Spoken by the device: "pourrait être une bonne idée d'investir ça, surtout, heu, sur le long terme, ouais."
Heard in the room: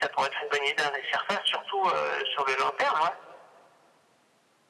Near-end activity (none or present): none